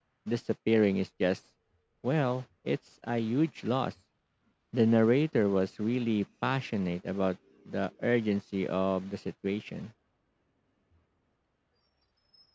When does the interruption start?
none

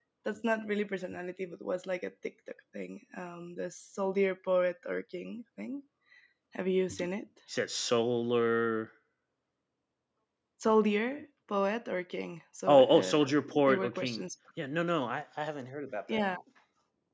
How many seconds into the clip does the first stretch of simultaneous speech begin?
12.7 s

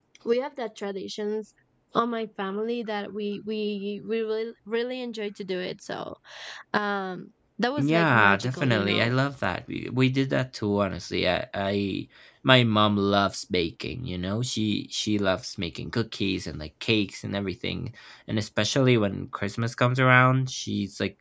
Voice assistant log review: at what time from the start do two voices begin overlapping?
7.8 s

